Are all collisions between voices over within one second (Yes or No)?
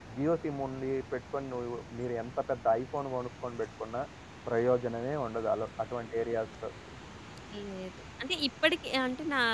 Yes